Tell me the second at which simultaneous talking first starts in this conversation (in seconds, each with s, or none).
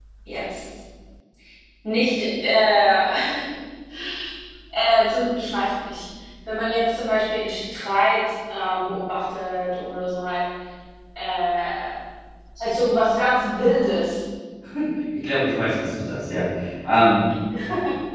none